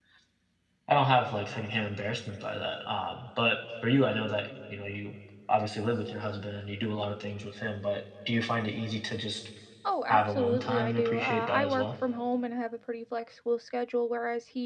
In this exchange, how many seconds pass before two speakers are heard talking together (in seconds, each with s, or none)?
10.1 s